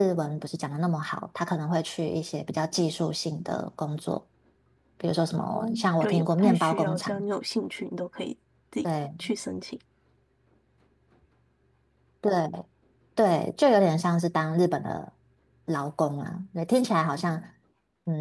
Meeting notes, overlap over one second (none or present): present